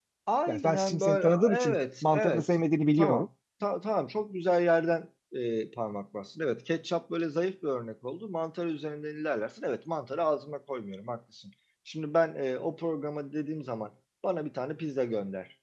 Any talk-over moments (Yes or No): Yes